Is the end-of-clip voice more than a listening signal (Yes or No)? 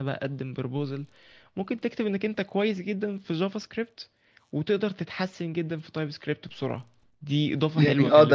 Yes